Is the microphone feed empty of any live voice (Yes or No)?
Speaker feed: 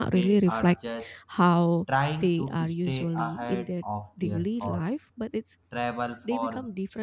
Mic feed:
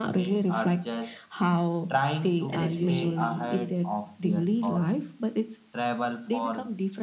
No